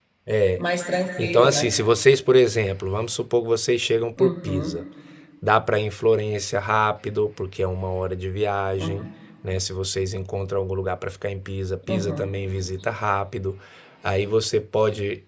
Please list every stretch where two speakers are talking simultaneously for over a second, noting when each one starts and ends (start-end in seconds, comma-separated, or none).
none